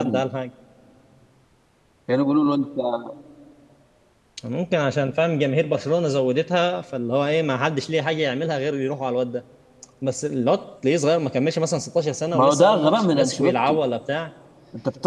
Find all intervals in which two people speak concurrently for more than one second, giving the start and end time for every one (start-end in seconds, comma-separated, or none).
12.3-13.8